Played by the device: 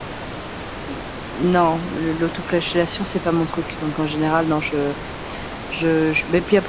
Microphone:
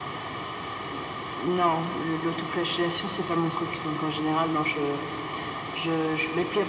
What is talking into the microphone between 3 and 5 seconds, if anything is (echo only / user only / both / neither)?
echo only